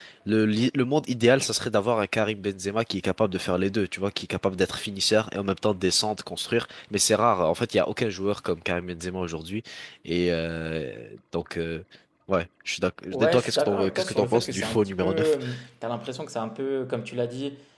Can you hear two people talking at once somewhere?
Yes, from 13.1 s

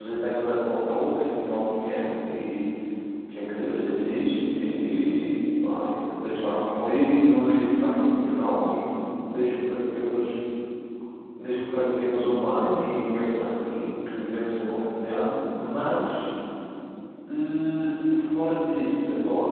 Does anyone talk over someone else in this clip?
No

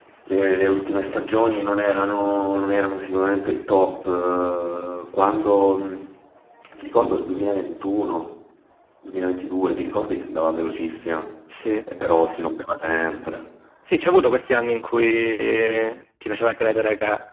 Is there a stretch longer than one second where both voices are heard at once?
No

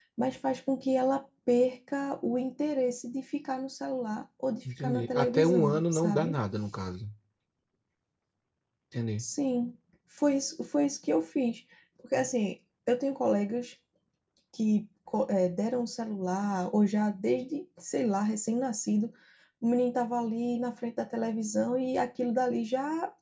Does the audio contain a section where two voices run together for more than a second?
Yes, from 4.6 s

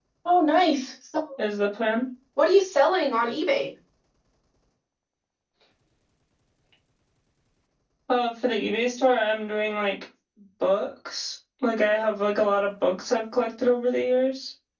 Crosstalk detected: No

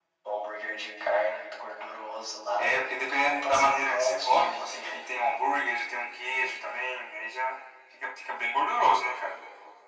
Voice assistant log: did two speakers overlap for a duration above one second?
Yes, from 2.6 s

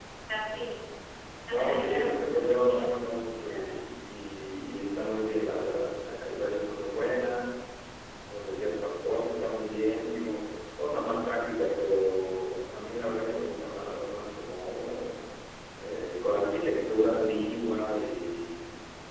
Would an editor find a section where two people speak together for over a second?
Yes, from 1.5 s

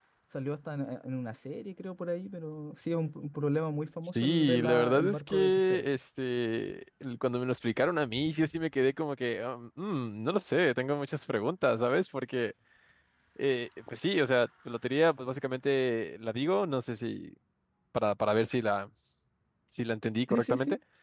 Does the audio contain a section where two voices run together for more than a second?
Yes, from 4.0 s

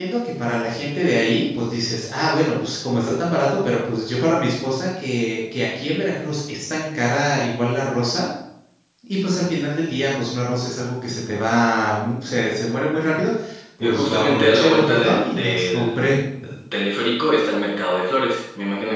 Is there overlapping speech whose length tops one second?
Yes, from 13.8 s

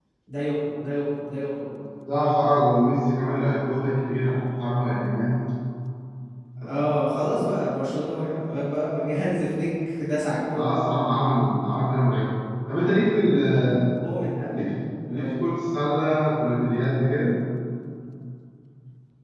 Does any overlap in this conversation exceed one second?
No

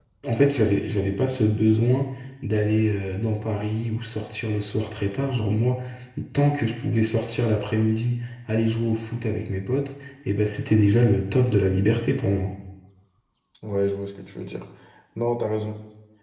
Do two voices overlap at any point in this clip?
No

